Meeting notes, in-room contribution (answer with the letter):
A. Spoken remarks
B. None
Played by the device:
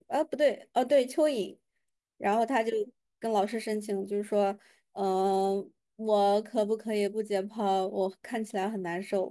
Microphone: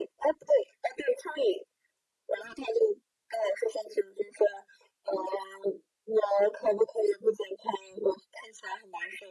B